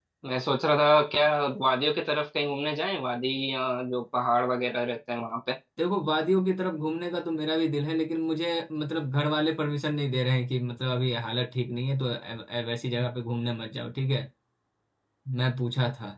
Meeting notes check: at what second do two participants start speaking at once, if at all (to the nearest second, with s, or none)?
none